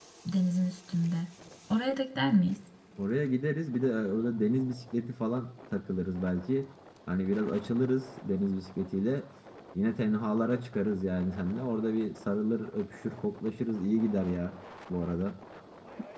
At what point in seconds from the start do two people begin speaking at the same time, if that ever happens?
none

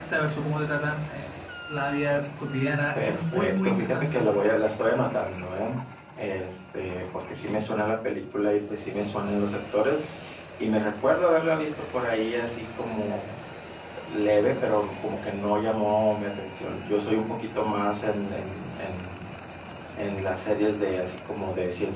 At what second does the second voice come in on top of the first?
3.0 s

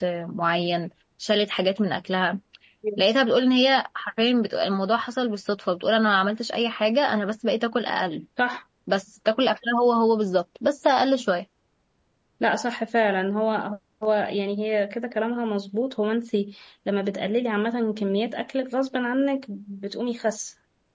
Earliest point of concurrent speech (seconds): none

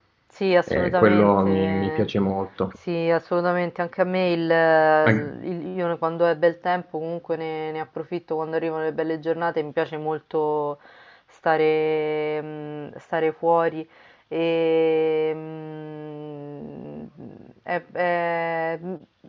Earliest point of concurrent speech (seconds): 0.7 s

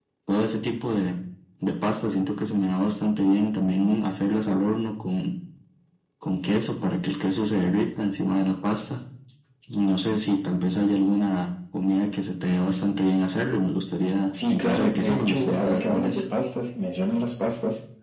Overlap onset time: 14.3 s

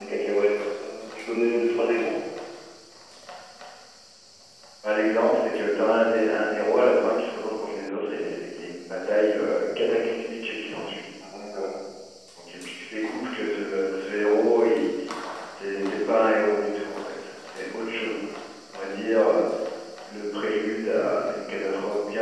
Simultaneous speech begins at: none

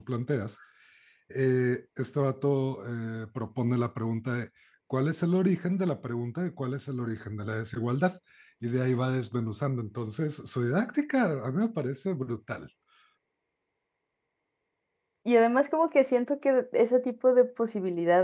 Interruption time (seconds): none

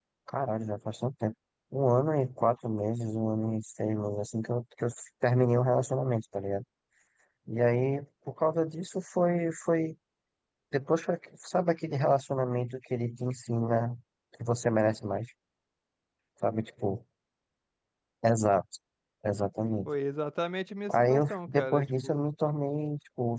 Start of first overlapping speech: 20.9 s

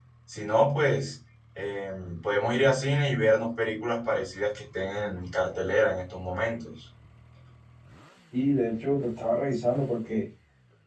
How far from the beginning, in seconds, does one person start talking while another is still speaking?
none

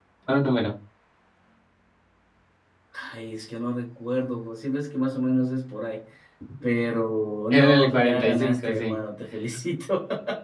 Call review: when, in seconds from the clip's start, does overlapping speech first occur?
7.5 s

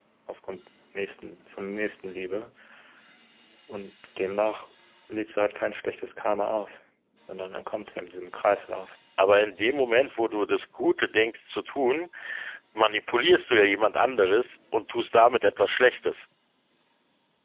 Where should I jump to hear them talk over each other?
none

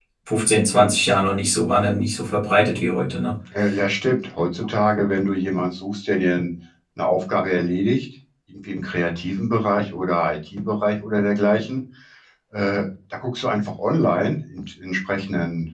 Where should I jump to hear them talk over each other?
none

